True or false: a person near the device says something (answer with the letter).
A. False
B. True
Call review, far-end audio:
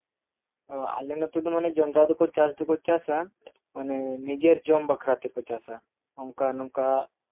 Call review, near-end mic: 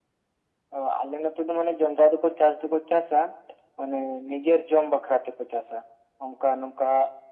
A